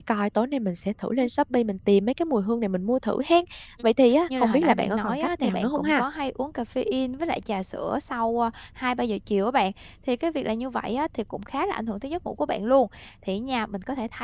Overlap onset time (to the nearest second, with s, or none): 4 s